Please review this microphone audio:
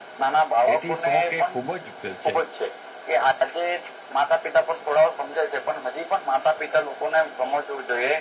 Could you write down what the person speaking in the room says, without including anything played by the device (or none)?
તેથી શોખ એ ખૂબ જ છે